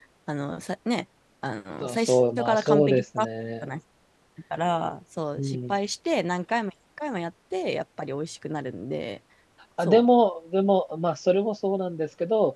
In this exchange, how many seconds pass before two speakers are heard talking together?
1.8 s

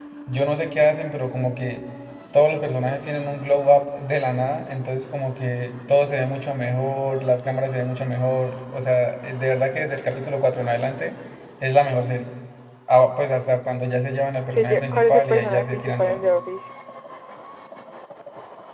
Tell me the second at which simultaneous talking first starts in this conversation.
14.5 s

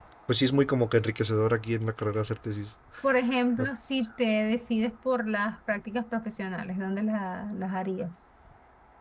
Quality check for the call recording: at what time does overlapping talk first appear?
none

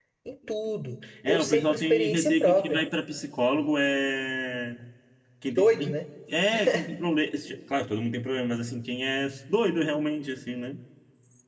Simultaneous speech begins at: 1.3 s

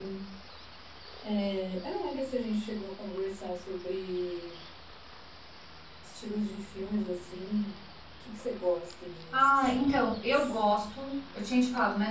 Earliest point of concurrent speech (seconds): 9.3 s

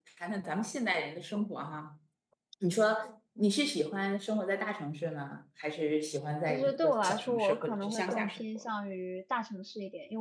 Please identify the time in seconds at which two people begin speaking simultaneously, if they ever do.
6.5 s

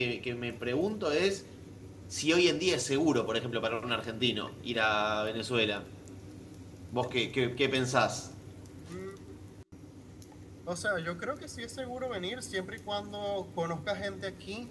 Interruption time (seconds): none

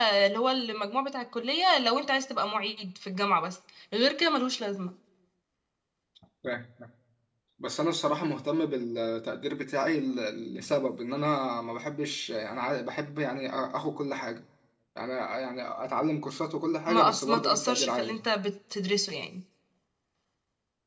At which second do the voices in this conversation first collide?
16.9 s

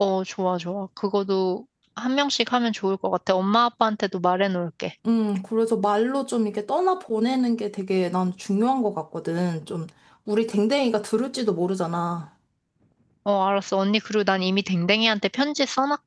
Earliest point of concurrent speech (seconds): none

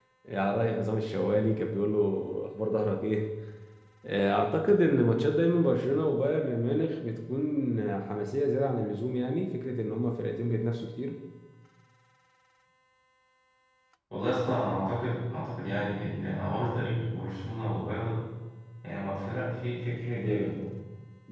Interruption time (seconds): none

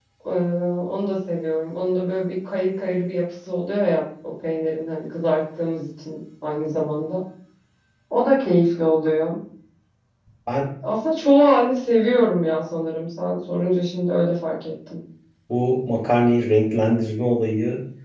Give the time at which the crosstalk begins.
none

